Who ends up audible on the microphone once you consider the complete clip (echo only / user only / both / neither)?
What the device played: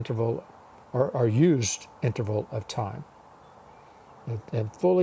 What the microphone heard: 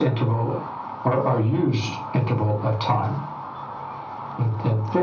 echo only